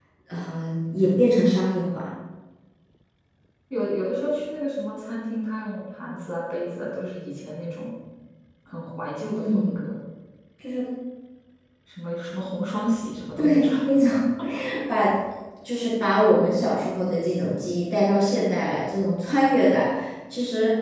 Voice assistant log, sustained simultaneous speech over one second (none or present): none